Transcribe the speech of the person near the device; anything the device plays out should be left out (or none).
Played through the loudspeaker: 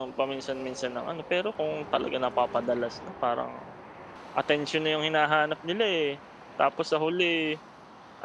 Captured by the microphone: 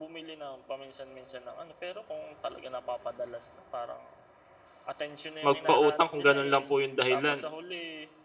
Magpautang kung ganun lang po yung dahilan